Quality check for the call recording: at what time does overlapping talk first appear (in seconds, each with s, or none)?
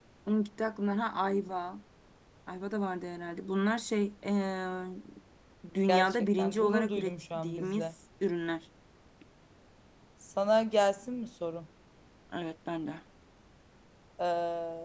5.9 s